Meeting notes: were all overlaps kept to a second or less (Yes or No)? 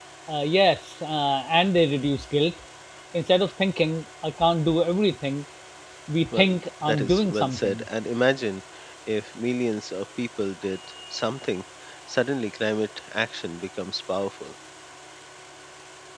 No